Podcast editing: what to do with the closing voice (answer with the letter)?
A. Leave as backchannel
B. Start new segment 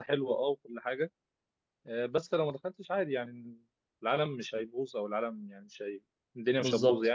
A